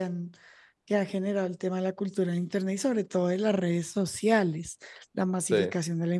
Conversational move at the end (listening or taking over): listening